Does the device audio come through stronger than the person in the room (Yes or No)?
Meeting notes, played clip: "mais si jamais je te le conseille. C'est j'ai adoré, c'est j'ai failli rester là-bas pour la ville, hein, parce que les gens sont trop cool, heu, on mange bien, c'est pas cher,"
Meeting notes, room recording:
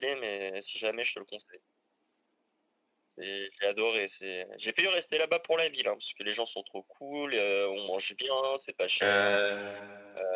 No